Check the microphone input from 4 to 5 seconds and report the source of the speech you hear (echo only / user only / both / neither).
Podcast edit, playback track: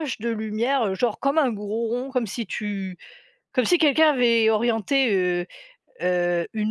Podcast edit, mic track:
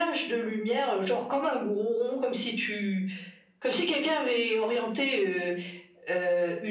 echo only